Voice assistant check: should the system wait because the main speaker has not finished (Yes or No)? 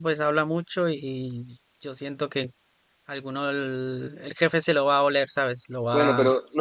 No